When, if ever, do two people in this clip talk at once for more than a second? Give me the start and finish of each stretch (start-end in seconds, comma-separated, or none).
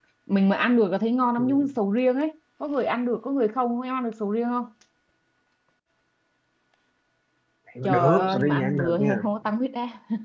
7.8-9.2